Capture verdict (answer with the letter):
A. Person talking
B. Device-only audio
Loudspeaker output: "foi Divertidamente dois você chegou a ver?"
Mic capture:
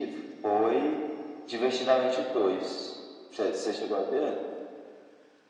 B